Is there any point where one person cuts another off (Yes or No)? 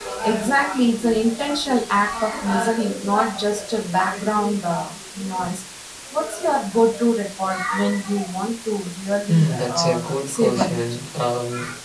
Yes